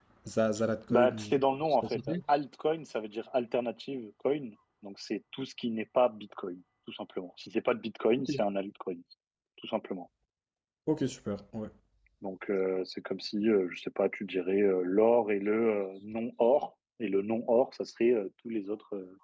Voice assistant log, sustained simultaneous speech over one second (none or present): none